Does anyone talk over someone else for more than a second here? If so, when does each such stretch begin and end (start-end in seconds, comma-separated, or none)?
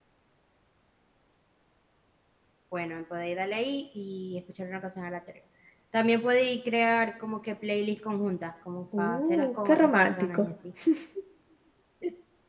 9.0-10.5